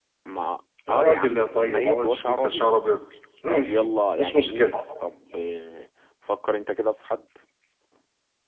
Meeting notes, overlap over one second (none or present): present